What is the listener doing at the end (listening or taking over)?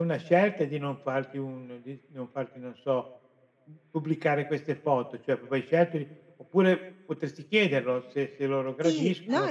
taking over